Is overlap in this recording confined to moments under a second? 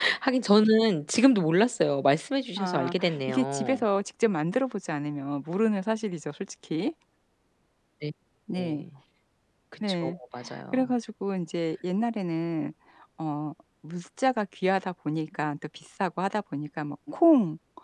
No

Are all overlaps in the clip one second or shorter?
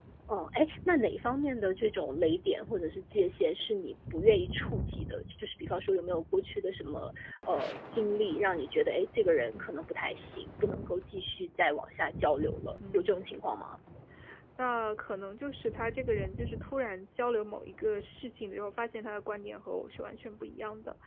Yes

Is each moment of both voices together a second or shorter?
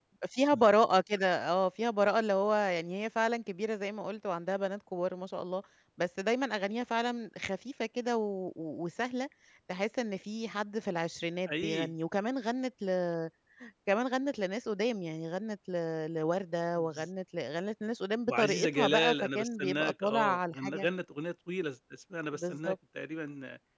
No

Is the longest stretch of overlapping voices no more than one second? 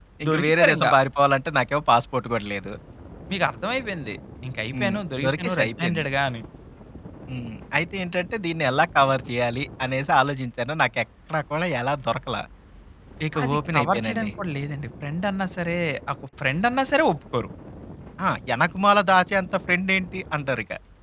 No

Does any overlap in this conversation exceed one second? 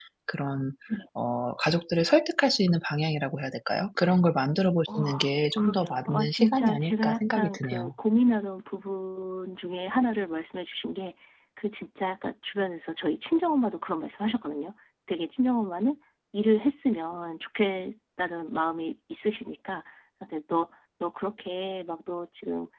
Yes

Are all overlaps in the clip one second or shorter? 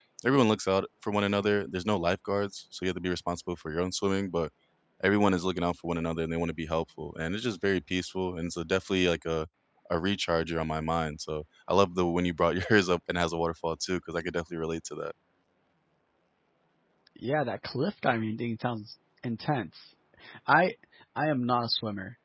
Yes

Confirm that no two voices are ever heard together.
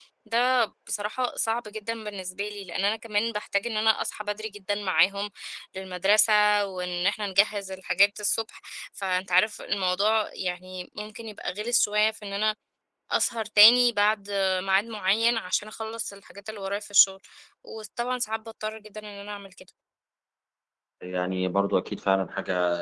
Yes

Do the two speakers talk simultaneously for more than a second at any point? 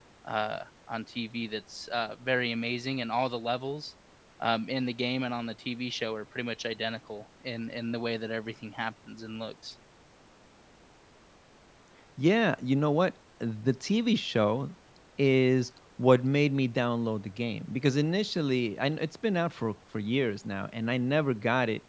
No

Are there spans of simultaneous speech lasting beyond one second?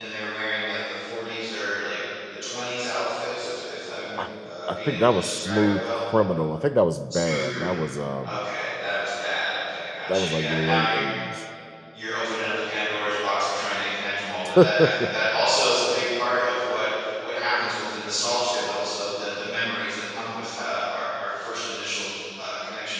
Yes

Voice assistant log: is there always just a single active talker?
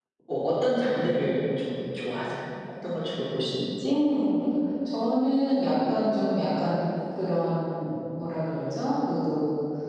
Yes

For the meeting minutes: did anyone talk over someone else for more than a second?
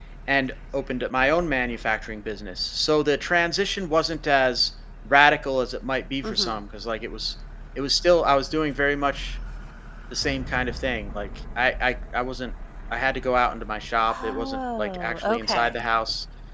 Yes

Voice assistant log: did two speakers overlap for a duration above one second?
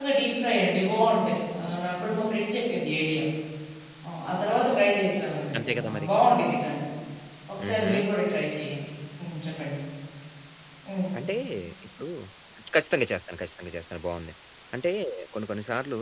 No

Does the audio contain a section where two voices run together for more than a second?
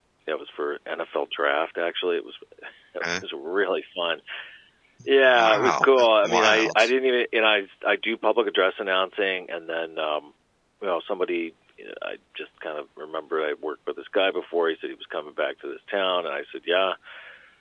Yes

